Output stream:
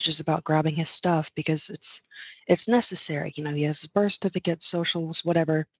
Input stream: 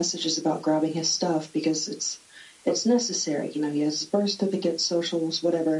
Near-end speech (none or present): none